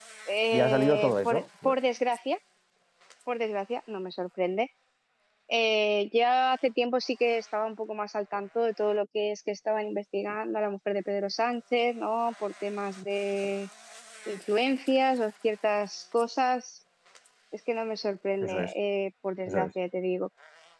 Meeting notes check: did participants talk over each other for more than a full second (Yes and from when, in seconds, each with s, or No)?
Yes, from 0.5 s